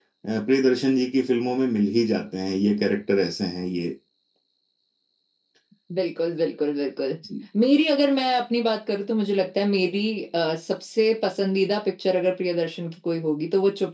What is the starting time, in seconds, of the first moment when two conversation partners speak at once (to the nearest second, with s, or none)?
none